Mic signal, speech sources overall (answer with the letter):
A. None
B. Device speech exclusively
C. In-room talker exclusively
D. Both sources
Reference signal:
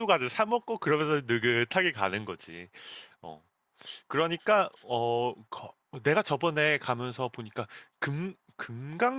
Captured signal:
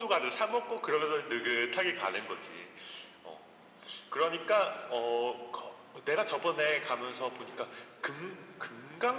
B